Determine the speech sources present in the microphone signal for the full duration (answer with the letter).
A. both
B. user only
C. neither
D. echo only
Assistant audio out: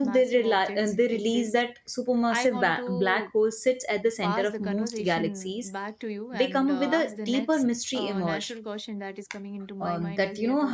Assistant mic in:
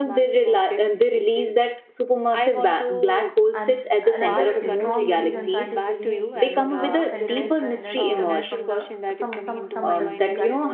A